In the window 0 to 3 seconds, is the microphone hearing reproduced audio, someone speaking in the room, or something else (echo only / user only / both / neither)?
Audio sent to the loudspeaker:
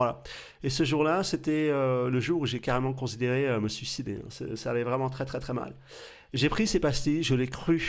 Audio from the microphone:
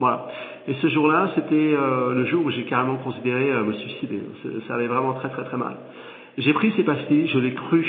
echo only